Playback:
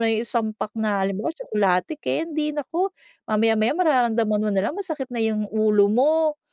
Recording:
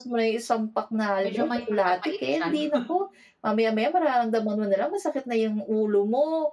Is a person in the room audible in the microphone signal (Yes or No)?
Yes